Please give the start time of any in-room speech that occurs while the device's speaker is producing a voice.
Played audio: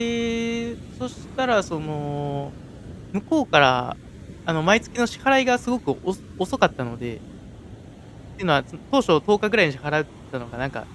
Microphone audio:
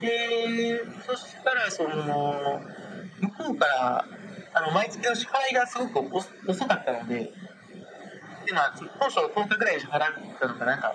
none

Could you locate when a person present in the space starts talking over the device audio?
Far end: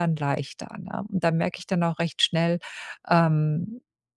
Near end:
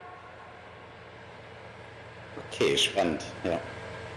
2.4 s

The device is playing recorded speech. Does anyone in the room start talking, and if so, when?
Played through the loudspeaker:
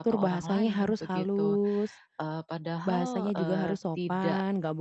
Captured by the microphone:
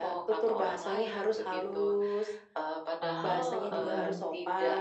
3.0 s

